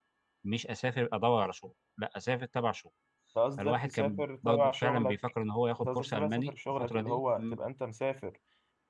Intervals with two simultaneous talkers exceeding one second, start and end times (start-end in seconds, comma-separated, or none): 3.6-5.2, 5.9-7.6